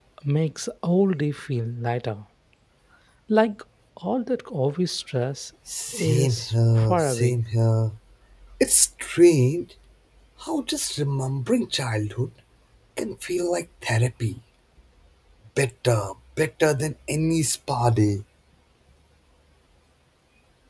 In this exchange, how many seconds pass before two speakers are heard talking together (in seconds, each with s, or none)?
5.9 s